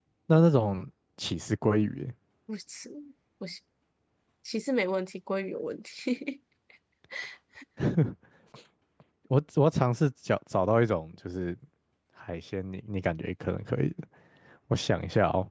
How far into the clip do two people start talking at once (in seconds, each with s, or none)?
none